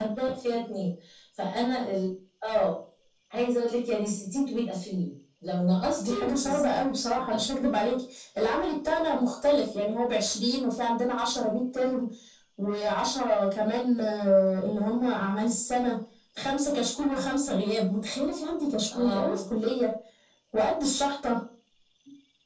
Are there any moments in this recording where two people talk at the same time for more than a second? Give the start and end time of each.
6.0-7.4

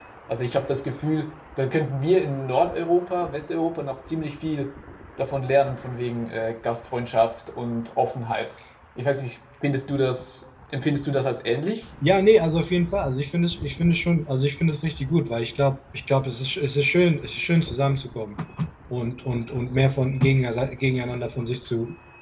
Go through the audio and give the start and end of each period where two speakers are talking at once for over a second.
none

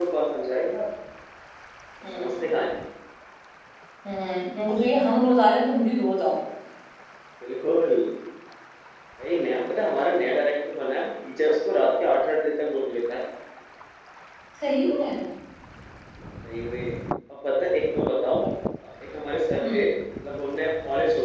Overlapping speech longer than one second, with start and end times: none

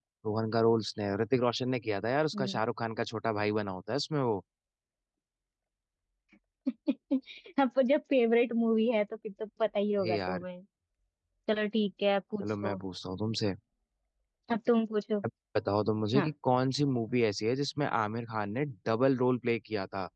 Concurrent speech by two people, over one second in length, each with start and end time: none

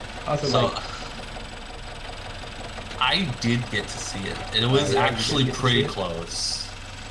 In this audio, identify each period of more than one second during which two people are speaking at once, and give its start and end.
4.7-5.9

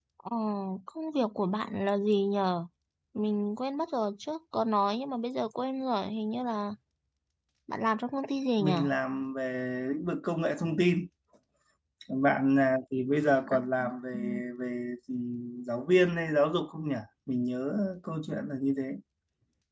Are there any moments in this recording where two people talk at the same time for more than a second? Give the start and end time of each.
none

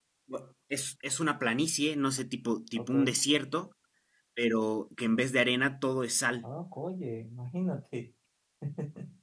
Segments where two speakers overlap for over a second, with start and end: none

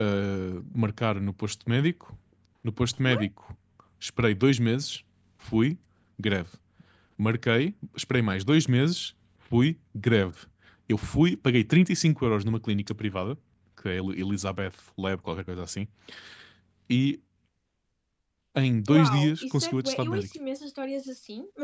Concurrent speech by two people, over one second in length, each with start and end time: 18.9-20.3

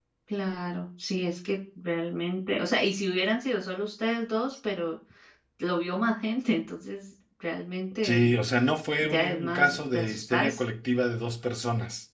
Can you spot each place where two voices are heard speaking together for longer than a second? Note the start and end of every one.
9.0-10.6

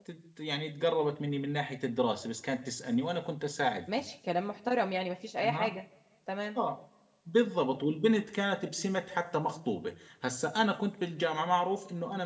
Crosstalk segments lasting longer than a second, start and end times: none

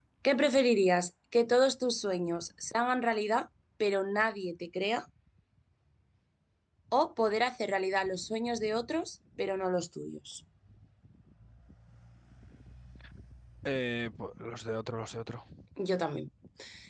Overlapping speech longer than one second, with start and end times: none

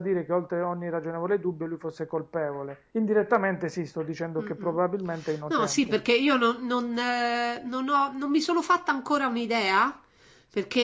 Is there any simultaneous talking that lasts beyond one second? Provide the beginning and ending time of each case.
none

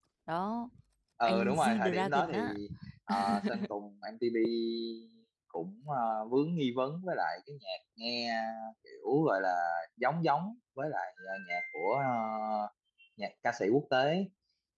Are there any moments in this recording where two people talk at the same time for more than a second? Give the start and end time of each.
1.2-2.6

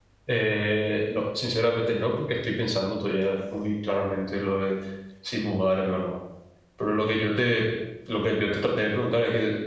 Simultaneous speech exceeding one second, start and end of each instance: none

